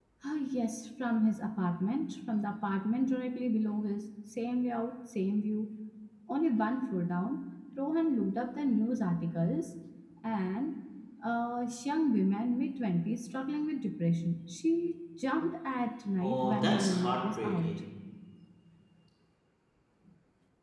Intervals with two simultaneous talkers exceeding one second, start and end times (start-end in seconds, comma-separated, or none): 16.2-17.8